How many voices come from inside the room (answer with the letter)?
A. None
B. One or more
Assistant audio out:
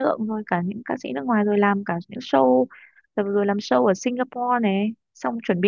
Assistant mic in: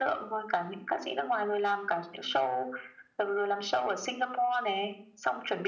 A